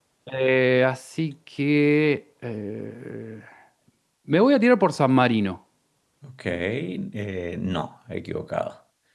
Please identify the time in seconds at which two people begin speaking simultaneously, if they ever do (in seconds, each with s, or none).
none